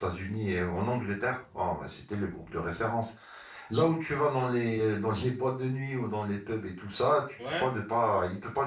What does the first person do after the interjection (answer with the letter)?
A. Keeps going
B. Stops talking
A